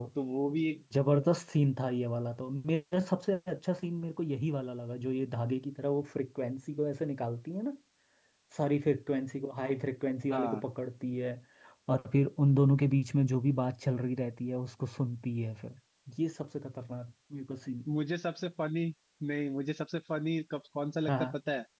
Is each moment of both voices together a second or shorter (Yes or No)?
Yes